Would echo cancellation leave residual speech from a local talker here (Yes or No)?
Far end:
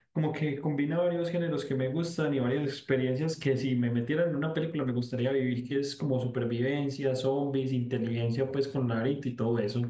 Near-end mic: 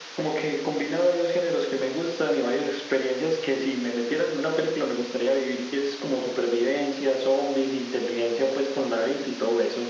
No